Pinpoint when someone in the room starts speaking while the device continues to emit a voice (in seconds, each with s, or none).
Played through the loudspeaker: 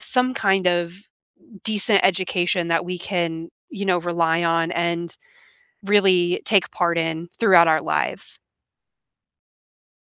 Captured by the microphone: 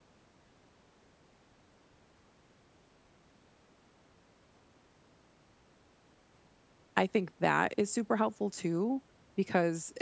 7.0 s